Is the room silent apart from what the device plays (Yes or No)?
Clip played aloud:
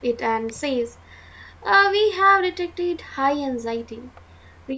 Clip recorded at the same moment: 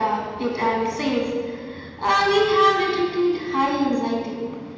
Yes